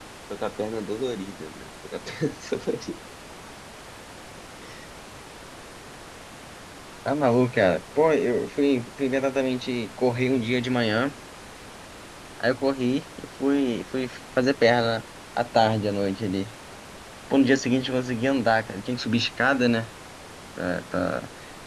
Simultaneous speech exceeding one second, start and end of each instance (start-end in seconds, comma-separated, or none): none